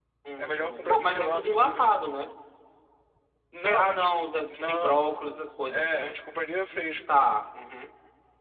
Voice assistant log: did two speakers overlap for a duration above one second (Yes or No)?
Yes